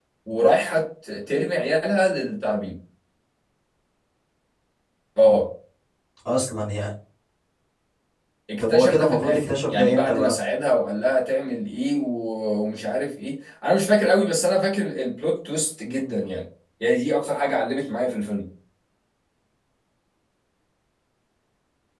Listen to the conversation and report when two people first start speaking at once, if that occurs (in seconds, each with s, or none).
8.6 s